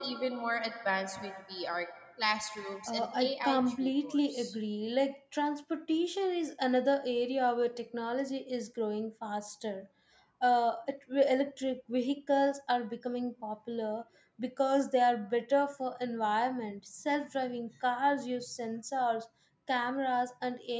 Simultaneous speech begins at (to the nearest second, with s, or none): 3 s